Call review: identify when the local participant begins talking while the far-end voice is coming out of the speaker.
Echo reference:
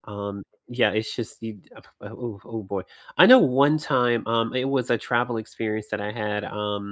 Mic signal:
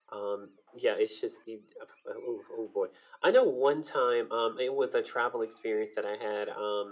none

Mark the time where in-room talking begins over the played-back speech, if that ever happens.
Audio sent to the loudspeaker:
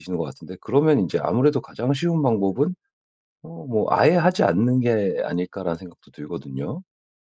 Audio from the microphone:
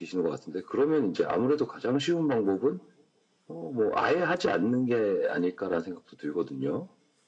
none

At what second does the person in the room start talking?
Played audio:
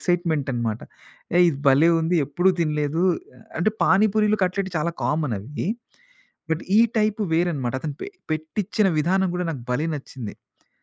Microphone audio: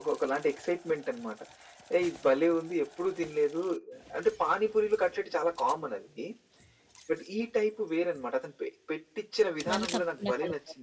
10 s

